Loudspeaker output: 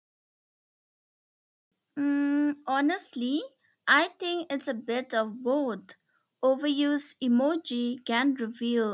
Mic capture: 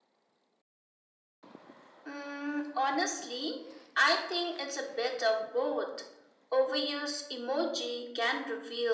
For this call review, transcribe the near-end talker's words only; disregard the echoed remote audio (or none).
none